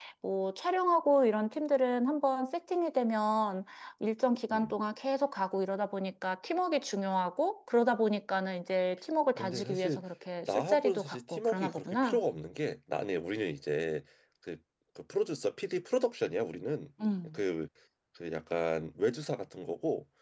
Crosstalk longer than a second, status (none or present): present